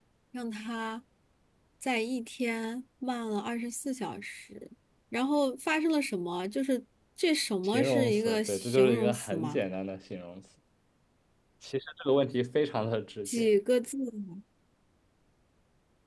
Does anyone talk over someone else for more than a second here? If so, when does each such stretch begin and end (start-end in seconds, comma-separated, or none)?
7.6-9.6